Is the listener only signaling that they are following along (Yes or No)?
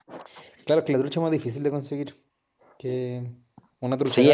No